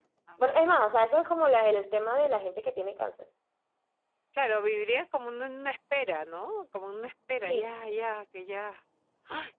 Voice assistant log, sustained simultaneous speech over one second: none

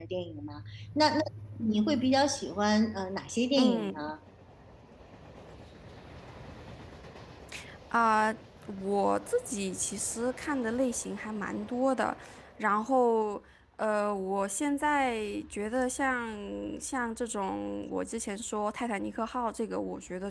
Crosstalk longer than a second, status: none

